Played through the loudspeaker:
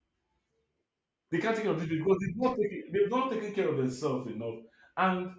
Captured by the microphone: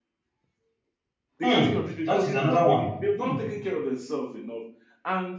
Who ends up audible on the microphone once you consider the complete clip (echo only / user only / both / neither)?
both